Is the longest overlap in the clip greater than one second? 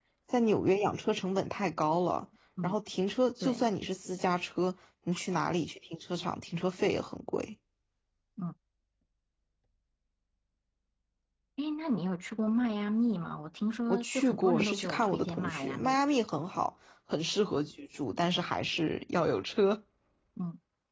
Yes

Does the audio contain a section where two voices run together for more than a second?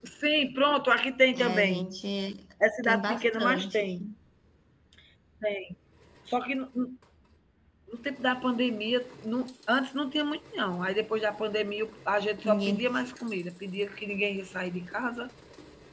Yes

